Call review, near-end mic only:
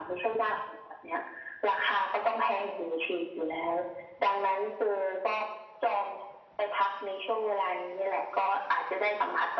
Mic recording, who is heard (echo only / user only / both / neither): echo only